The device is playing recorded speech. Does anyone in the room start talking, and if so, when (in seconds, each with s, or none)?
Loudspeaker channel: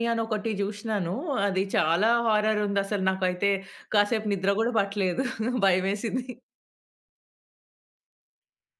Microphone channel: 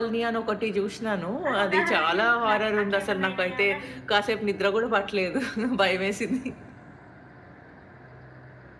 1.5 s